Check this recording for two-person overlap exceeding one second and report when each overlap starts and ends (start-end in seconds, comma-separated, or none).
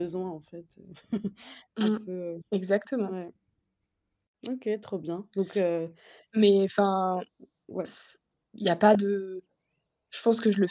none